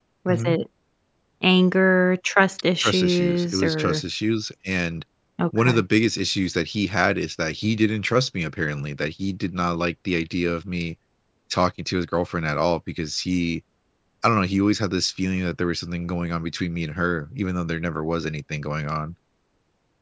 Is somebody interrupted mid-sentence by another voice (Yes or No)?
Yes